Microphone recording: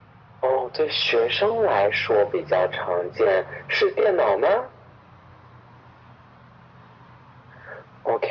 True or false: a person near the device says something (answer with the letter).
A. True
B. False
B